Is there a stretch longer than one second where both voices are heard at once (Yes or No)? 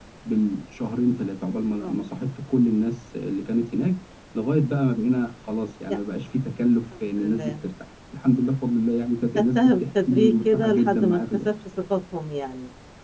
Yes